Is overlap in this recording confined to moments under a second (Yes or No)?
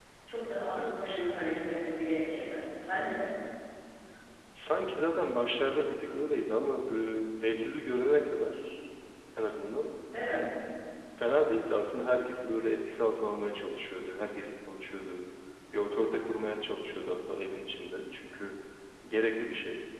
Yes